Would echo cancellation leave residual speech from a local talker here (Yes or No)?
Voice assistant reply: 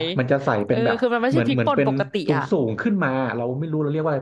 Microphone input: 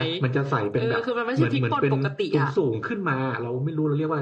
No